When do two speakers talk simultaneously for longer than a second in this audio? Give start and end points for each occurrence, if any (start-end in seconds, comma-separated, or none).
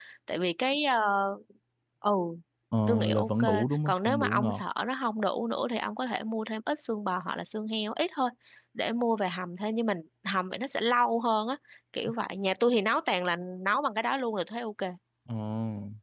2.9-4.6